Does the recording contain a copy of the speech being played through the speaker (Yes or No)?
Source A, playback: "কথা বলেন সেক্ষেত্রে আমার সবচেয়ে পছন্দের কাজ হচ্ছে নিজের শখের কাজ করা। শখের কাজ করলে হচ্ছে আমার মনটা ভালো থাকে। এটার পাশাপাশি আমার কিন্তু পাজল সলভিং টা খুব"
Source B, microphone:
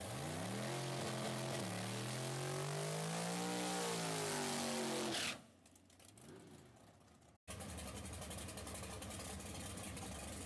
No